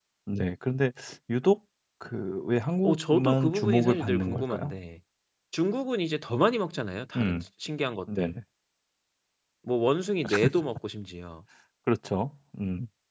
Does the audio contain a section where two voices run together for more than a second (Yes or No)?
Yes